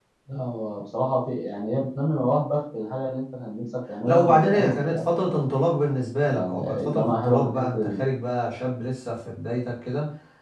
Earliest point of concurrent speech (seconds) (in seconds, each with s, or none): 4.0 s